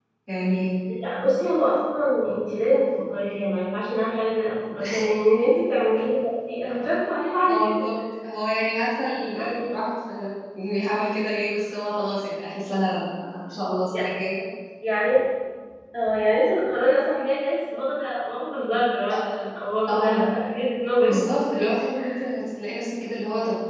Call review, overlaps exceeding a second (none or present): none